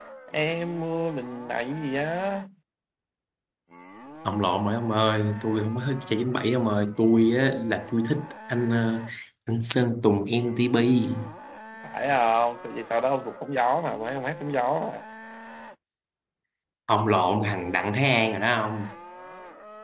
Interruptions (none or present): none